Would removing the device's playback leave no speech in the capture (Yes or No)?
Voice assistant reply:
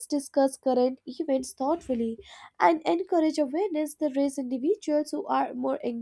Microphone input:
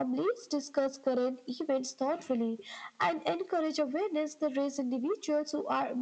Yes